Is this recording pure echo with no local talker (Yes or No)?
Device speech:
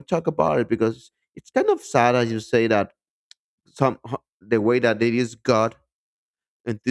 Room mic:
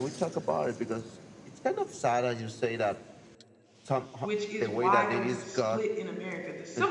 No